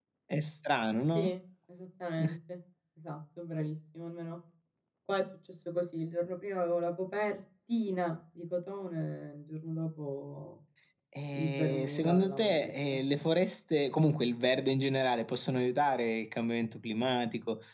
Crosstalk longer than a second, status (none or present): present